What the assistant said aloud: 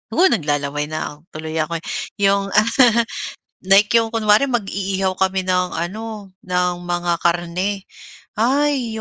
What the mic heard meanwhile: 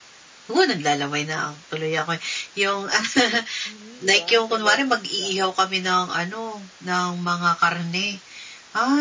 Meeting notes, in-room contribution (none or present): present